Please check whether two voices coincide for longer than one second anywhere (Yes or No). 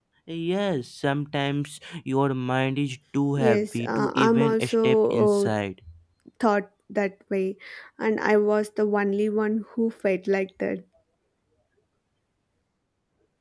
Yes